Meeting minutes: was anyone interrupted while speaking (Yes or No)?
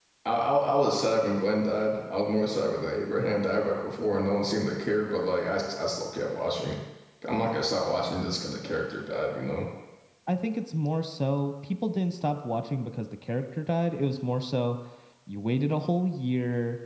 No